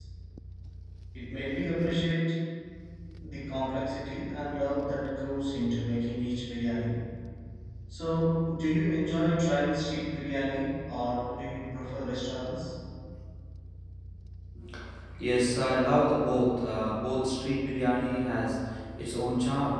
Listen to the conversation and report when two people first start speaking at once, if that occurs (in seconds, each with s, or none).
none